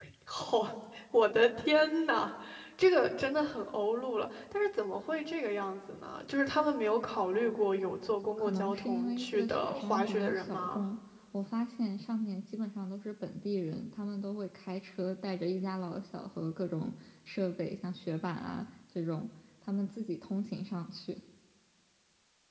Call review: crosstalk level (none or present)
present